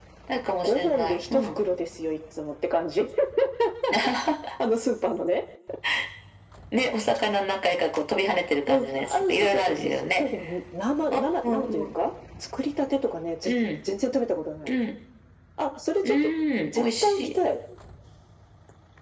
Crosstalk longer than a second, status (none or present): present